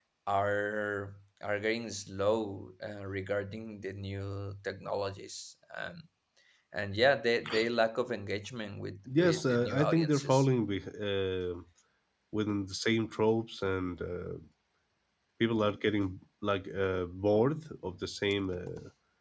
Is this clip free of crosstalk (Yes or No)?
No